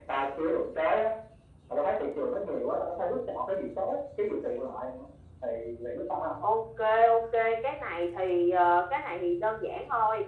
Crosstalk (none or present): none